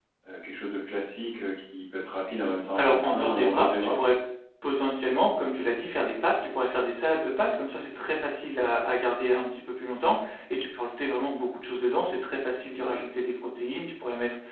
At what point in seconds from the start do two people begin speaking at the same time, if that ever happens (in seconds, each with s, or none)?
2.8 s